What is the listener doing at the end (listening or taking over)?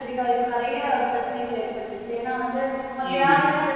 listening